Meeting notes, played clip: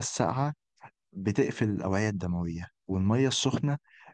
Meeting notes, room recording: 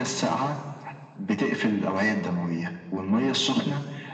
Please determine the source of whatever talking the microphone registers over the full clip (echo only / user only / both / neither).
echo only